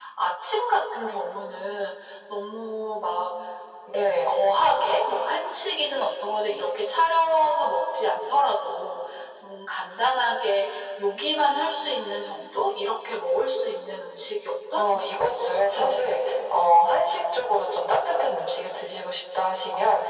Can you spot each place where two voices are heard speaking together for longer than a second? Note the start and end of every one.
14.8-16.0

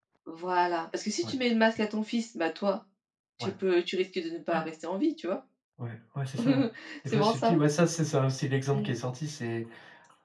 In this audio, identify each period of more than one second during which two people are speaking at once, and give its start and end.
none

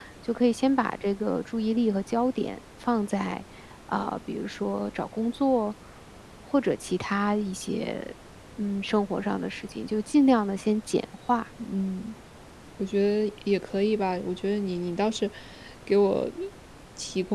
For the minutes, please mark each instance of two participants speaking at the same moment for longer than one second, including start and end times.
none

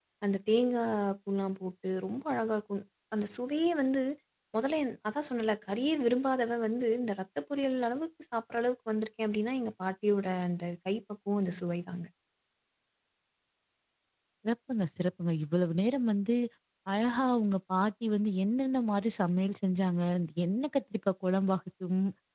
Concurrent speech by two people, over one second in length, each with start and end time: none

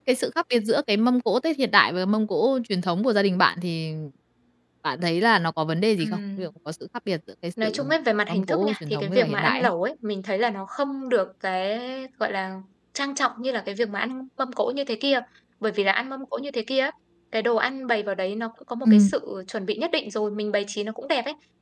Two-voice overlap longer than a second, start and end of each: 8.3-9.7

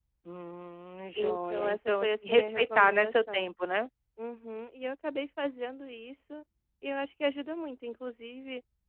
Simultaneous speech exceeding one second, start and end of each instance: 1.2-3.5

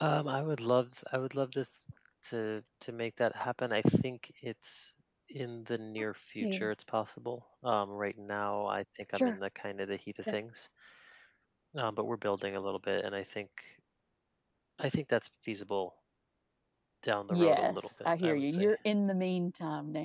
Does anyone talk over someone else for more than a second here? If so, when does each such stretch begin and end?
17.3-18.7

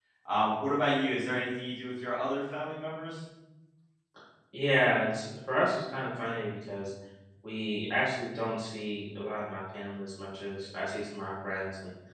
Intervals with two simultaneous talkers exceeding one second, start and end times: none

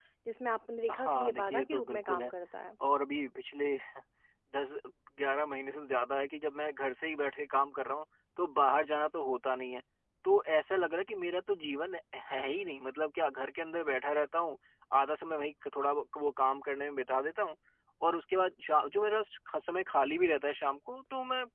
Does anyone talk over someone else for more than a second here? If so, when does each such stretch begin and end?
0.9-2.3

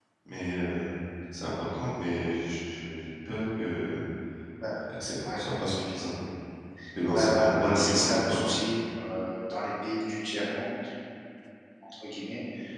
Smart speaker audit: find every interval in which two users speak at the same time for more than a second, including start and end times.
7.1-8.4

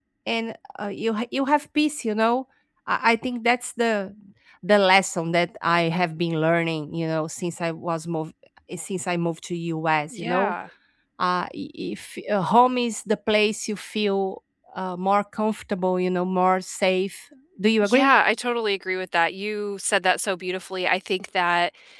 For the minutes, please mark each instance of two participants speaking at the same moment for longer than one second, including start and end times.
none

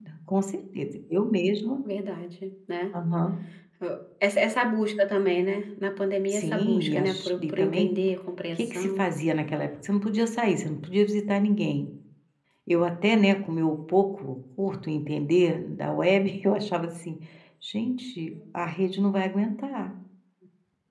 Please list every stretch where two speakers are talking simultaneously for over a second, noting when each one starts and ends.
6.3-7.9

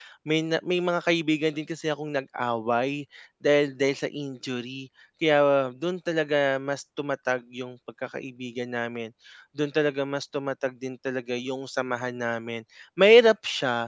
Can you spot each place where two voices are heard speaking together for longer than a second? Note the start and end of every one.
none

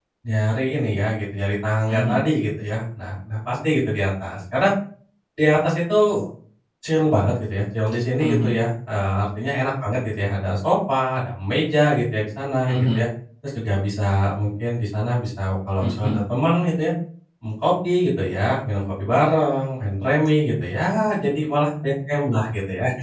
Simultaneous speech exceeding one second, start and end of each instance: none

